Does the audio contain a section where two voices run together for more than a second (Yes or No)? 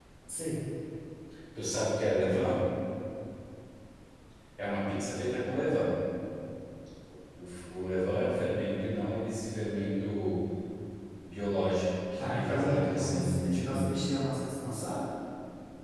Yes